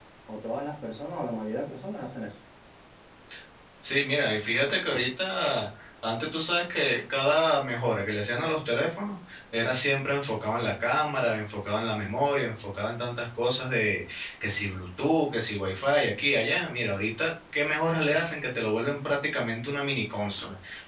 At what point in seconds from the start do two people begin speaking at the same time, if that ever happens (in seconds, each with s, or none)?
none